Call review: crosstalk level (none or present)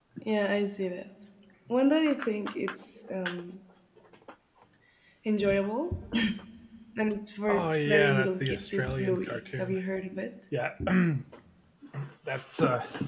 present